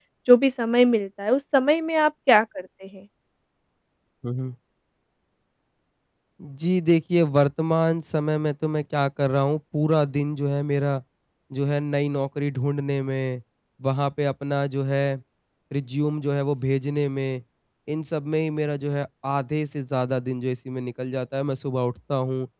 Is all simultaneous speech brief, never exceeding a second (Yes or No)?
Yes